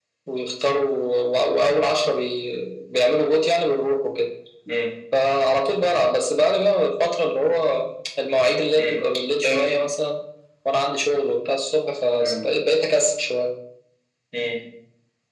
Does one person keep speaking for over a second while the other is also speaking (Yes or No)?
No